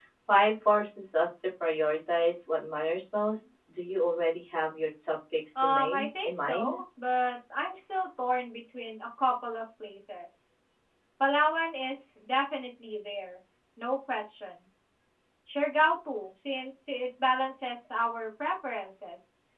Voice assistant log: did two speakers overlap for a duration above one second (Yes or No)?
Yes